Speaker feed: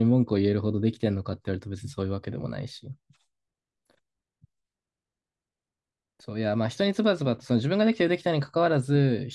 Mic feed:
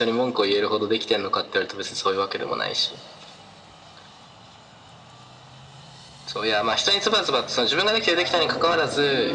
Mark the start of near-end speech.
8.1 s

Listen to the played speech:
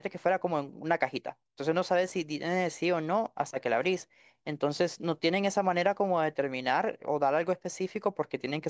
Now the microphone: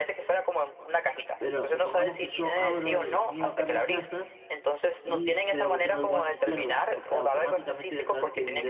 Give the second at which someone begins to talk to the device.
1.4 s

